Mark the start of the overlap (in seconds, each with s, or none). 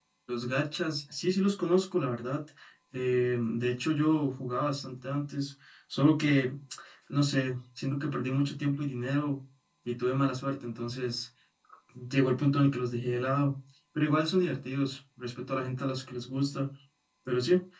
none